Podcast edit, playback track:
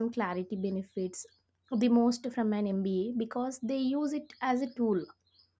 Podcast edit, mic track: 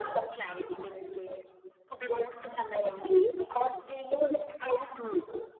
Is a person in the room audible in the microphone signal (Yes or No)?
No